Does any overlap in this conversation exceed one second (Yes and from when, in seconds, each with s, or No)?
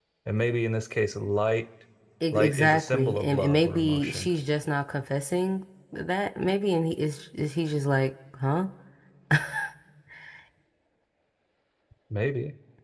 Yes, from 2.3 s